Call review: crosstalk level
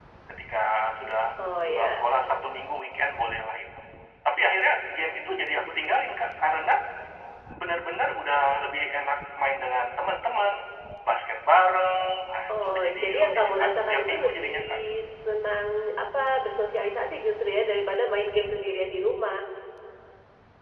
present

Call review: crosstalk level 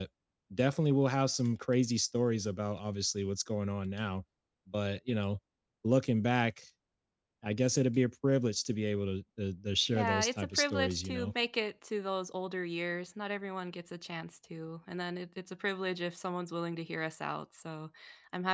present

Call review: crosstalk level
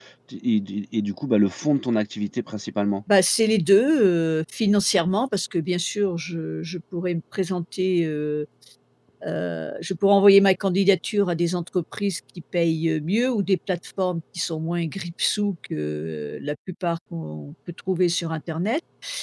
none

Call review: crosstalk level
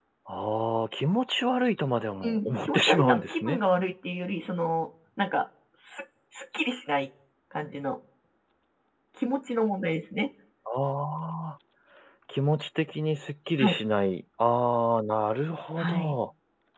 present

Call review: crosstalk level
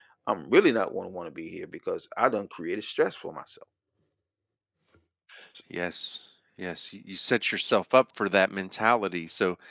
none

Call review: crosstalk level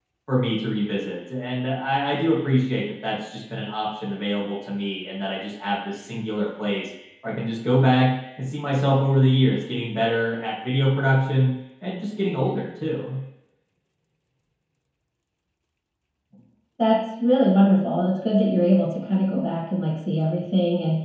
none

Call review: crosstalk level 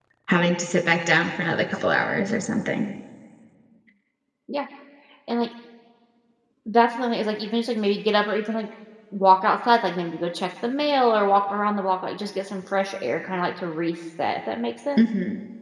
none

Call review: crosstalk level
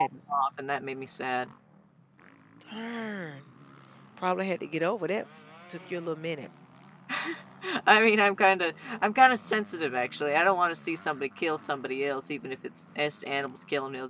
none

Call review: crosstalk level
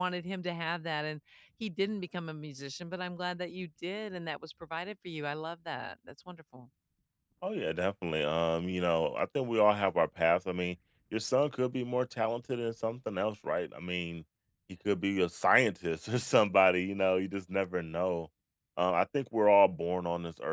none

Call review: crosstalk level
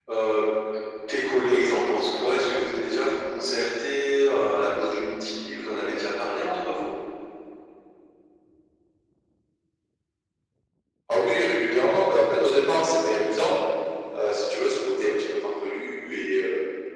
none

